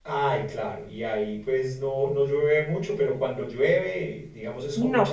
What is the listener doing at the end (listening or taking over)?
taking over